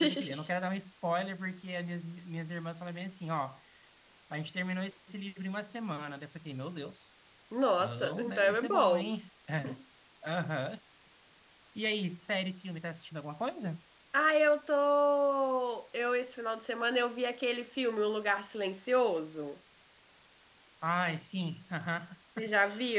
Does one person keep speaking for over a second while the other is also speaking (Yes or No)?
Yes